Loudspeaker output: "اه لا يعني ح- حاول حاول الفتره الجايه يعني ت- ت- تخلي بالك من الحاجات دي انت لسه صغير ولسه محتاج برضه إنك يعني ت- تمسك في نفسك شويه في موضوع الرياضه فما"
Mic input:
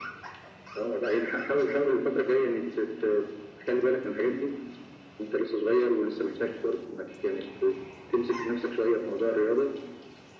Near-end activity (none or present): none